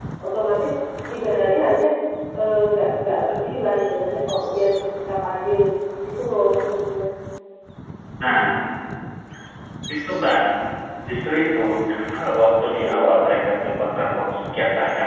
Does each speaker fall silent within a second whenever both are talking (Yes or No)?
Yes